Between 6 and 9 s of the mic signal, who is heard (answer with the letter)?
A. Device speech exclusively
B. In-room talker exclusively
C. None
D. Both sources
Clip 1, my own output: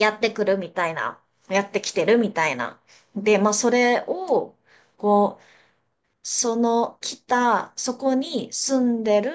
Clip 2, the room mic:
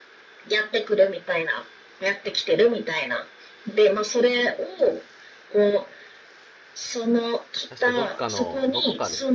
D